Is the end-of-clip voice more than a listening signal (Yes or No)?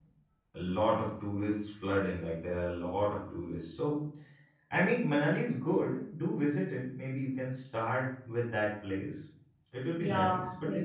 Yes